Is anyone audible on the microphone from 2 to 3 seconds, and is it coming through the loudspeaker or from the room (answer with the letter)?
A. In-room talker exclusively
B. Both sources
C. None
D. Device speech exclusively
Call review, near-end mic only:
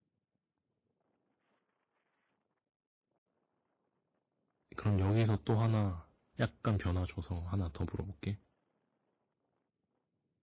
C